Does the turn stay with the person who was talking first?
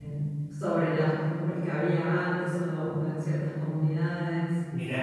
No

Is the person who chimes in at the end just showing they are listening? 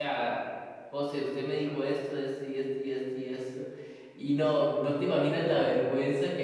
Yes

